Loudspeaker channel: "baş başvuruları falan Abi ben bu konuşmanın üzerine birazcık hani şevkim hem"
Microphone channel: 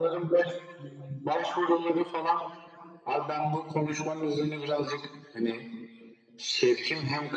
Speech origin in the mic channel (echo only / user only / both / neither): echo only